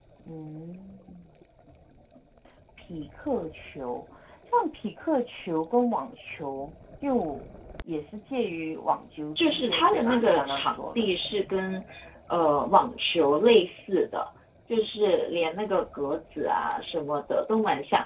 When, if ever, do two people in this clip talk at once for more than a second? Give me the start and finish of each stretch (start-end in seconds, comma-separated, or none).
9.3-11.1